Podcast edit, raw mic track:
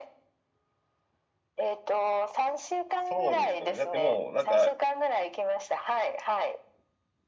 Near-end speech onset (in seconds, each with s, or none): 2.9 s